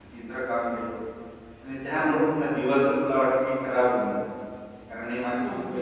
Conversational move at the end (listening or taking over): listening